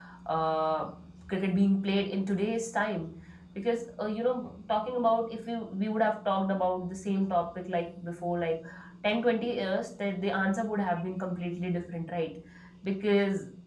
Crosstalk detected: No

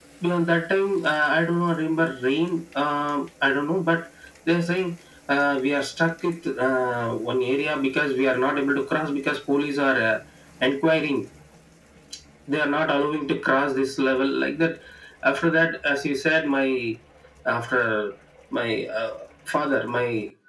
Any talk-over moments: No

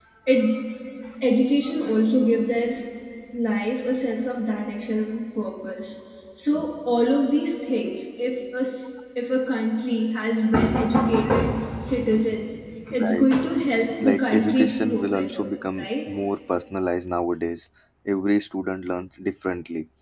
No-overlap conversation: No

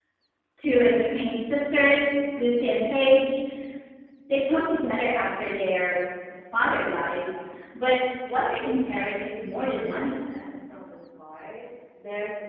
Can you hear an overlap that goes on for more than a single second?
No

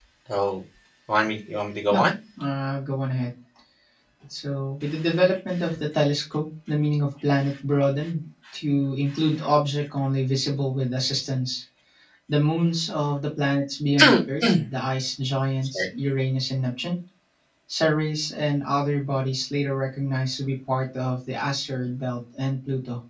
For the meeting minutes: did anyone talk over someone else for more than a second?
No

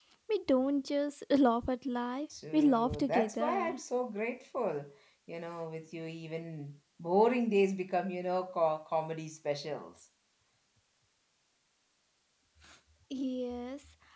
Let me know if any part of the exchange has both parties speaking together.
Yes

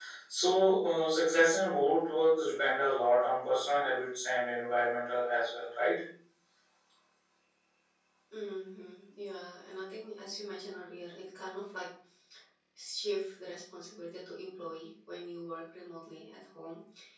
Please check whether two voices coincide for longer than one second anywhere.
No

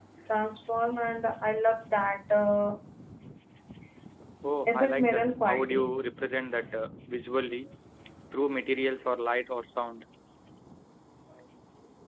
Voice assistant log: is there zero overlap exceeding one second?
No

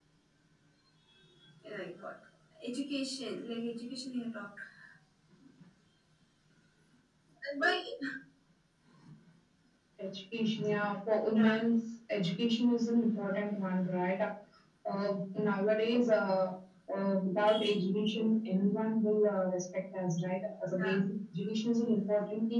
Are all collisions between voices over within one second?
Yes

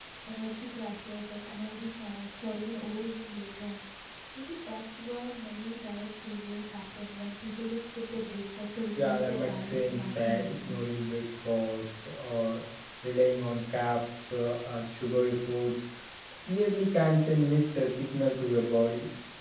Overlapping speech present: Yes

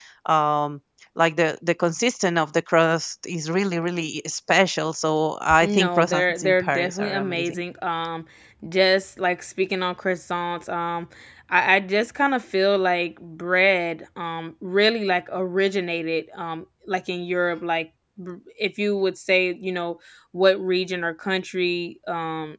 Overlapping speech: Yes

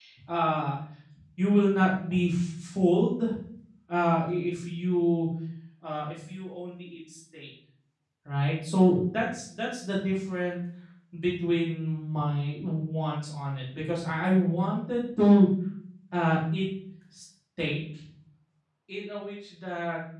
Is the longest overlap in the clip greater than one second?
No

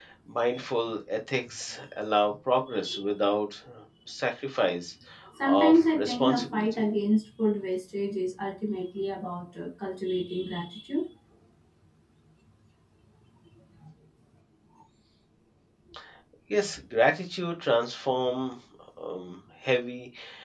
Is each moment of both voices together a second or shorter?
No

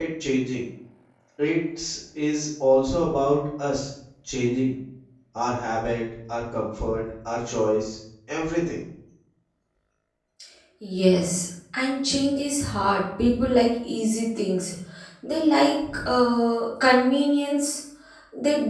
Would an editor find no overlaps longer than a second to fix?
Yes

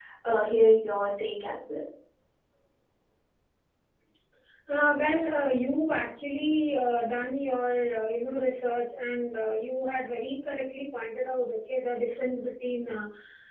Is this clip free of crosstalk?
Yes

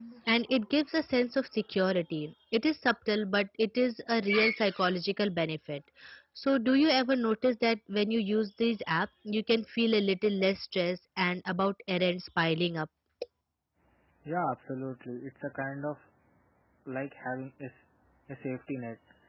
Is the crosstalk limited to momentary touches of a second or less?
Yes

